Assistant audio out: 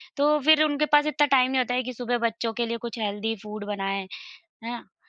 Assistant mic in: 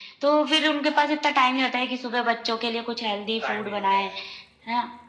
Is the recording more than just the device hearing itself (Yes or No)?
Yes